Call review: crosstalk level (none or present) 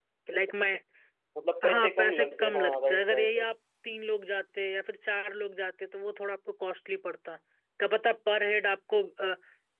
present